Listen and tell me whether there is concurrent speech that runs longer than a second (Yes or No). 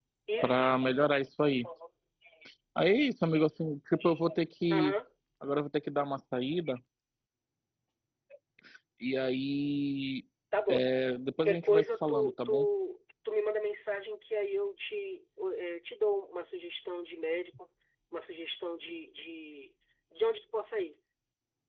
Yes